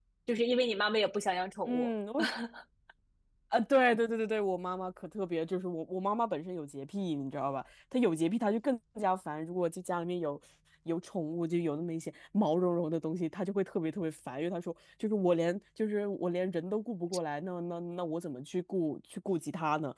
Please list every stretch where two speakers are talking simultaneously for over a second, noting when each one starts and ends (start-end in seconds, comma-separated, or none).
none